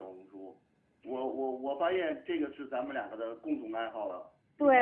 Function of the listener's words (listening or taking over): taking over